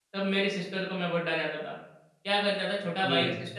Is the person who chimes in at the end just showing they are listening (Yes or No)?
Yes